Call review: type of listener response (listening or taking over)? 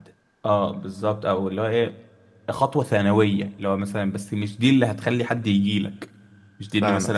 listening